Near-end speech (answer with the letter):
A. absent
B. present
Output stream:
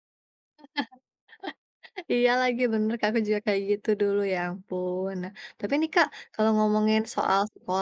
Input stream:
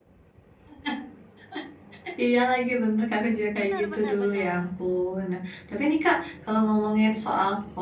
B